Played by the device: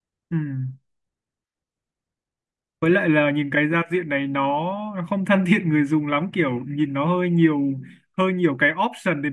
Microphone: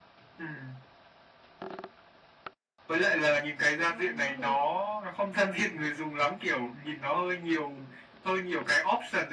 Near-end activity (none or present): present